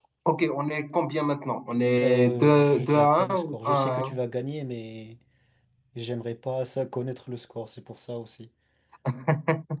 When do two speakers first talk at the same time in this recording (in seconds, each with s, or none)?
2.0 s